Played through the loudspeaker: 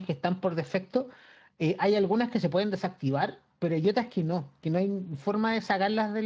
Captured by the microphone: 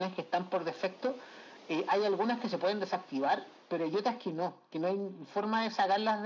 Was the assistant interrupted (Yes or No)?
No